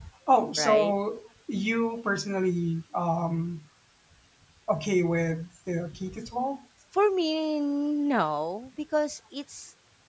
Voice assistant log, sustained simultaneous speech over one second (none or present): none